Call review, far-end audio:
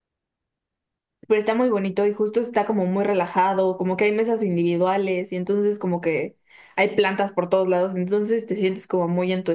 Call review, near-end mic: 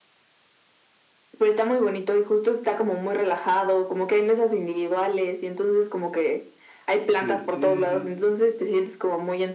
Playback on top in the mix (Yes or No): Yes